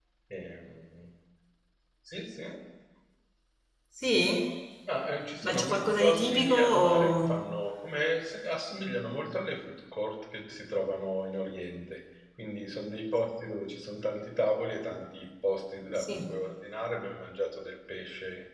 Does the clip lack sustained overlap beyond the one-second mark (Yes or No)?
No